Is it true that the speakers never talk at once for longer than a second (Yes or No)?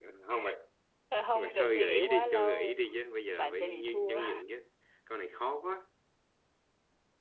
No